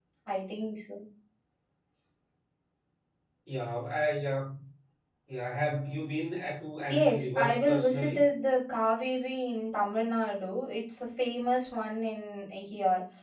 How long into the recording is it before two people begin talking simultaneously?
6.9 s

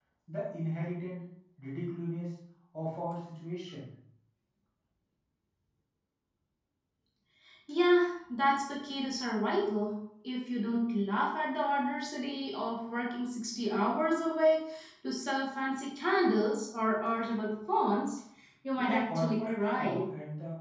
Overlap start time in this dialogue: 18.8 s

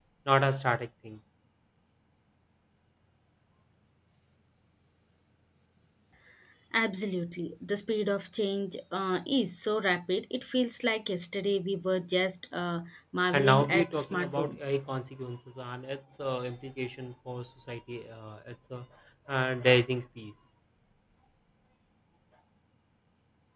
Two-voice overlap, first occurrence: 13.3 s

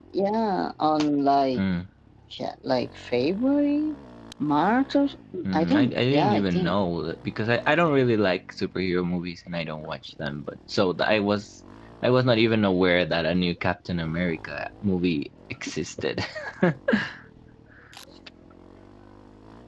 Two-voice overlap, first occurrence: 5.5 s

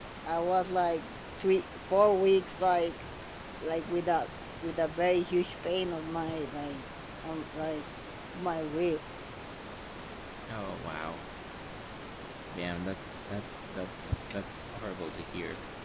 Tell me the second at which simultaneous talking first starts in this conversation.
none

